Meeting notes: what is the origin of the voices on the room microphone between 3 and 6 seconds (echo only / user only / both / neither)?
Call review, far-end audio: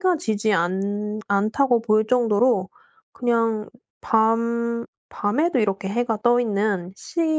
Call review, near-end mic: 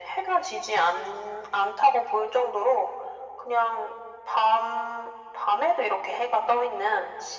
echo only